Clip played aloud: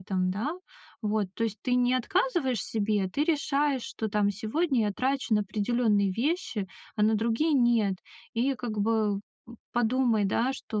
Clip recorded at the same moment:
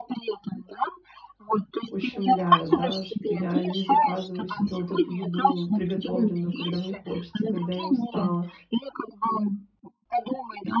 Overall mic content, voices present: both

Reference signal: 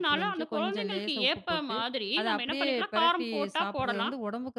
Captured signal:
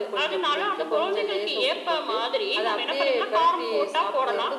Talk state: echo only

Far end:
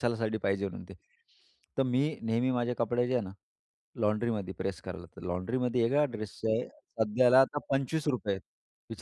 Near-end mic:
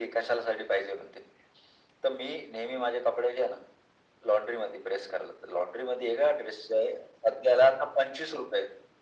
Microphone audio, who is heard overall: echo only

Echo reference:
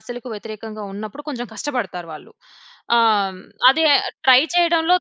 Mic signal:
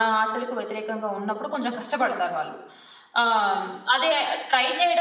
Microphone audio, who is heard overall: echo only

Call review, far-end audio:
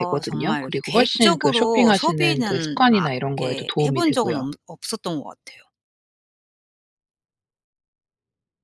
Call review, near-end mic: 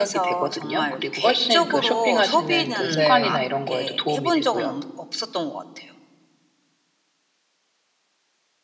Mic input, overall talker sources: both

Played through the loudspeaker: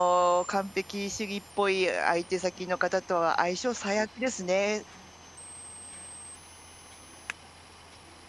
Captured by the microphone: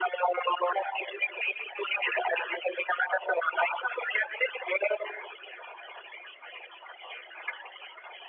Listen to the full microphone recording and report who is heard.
echo only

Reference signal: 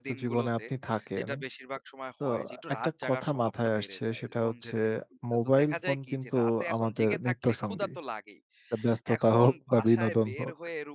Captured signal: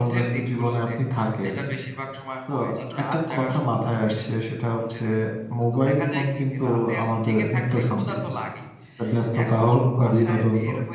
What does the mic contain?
echo only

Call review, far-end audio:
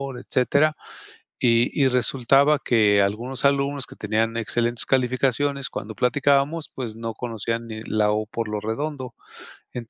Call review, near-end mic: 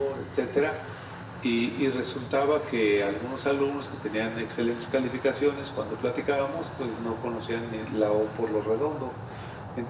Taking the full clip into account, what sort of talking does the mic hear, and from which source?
echo only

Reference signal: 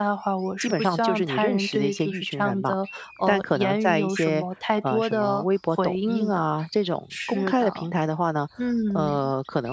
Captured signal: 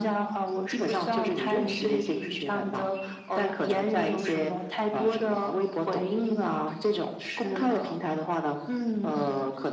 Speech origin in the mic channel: echo only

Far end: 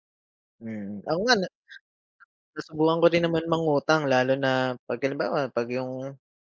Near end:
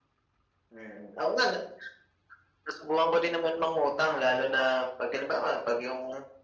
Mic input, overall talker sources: echo only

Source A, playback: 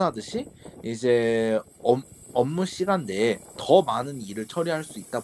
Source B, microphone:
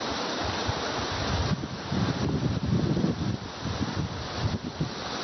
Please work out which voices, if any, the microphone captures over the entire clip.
neither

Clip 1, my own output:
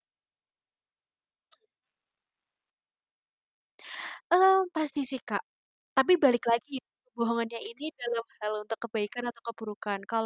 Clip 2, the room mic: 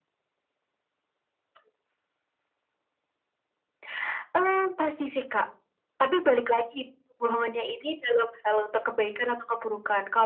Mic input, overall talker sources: echo only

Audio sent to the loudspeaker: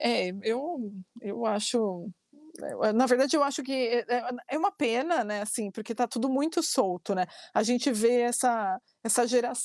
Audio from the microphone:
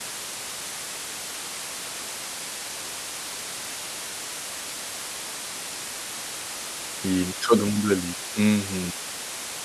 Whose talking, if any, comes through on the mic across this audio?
user only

